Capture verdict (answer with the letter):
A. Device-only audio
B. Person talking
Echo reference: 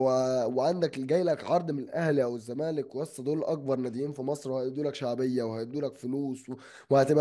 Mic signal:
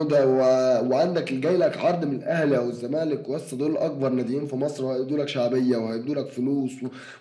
A